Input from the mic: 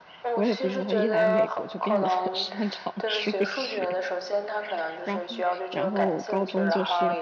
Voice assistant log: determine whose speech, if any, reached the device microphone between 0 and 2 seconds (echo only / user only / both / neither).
both